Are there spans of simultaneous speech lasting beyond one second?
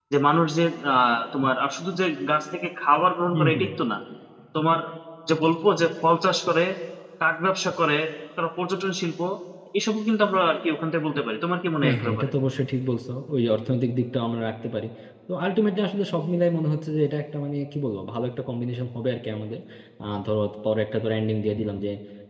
No

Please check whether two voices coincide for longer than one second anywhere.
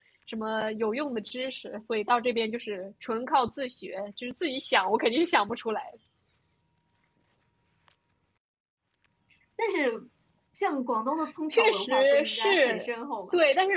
Yes, from 11.5 s

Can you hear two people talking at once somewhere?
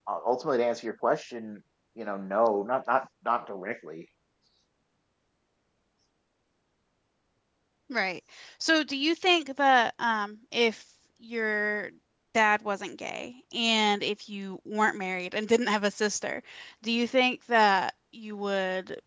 No

